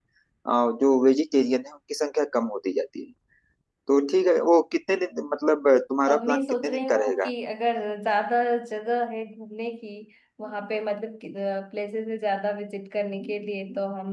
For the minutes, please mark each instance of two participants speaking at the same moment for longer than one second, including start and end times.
6.1-7.3

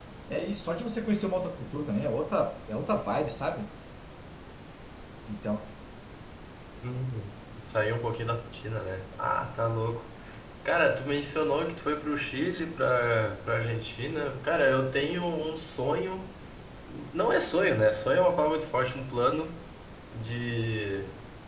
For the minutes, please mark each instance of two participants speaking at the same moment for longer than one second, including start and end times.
none

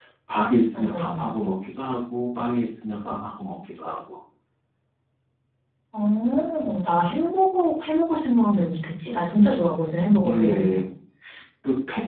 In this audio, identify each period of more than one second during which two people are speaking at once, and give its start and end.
none

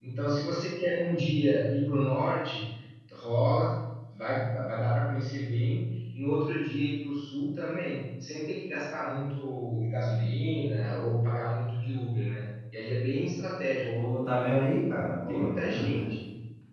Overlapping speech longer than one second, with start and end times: none

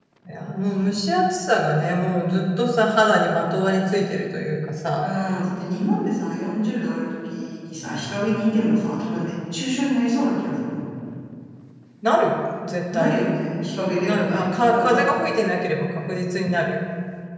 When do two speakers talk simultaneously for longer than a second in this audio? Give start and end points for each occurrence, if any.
13.9-15.2

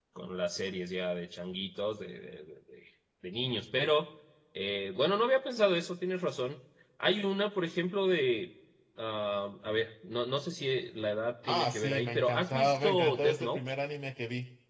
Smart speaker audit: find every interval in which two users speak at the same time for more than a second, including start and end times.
11.5-13.6

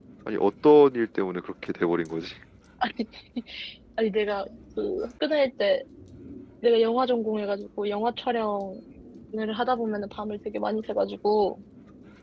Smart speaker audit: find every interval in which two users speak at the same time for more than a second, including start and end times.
none

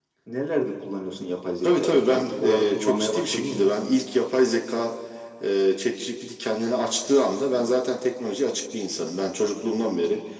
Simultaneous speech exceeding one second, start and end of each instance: 1.6-3.8

